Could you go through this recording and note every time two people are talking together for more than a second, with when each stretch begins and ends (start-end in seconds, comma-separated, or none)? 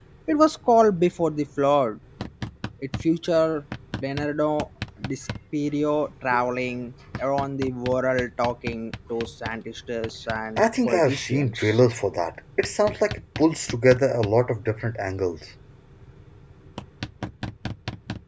10.6-11.8